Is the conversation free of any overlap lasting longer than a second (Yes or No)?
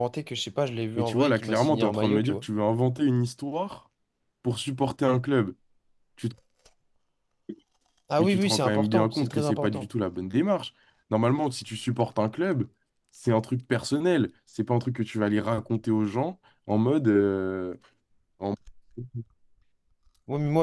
No